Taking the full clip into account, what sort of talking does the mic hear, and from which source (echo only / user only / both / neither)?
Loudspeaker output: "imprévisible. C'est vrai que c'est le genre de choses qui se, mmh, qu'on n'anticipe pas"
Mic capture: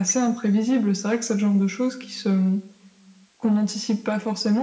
echo only